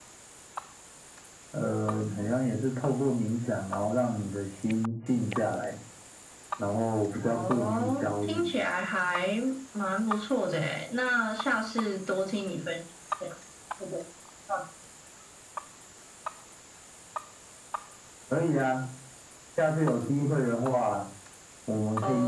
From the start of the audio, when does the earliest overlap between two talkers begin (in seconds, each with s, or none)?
7.3 s